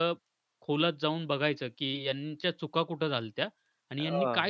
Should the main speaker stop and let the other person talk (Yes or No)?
No